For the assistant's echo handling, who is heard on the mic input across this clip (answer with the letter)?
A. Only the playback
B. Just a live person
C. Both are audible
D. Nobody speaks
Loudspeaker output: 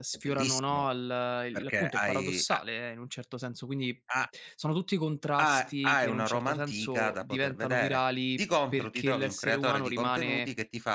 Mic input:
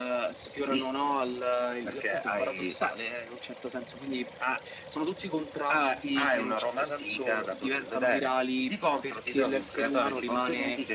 A